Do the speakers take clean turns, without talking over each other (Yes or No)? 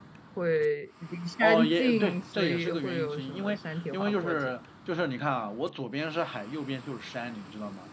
No